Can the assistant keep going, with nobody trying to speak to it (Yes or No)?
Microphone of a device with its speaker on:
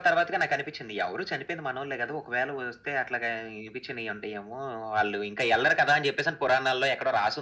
Yes